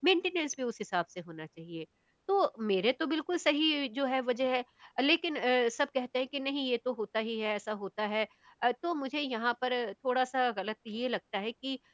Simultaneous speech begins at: none

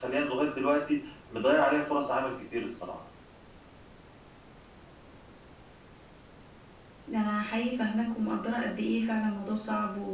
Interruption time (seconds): none

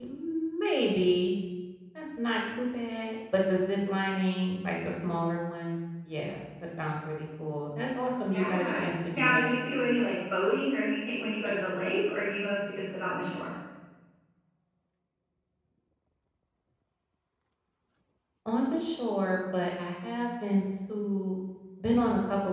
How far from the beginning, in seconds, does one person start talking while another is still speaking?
8.3 s

